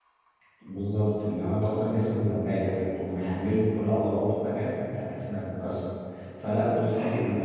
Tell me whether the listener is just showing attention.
Yes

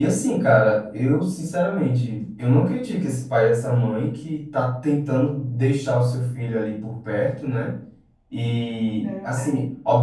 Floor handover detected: No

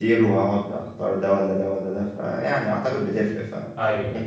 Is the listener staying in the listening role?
Yes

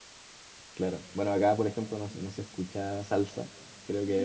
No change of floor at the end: No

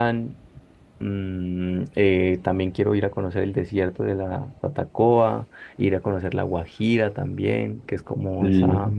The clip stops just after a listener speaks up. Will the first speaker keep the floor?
Yes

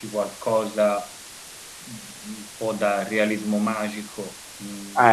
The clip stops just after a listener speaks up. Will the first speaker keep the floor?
No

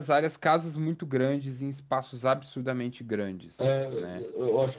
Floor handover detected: Yes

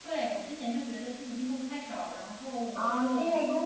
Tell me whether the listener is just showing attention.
No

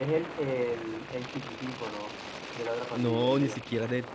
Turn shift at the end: Yes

